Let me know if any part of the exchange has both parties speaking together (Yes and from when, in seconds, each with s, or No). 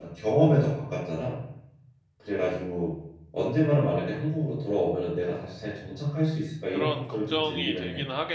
Yes, from 6.7 s